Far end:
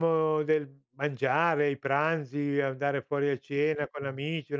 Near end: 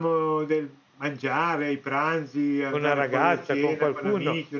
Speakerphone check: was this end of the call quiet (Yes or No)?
No